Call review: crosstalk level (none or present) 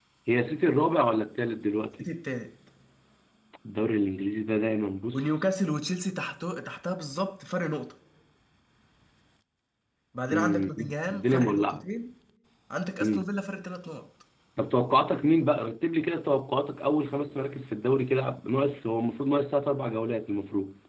present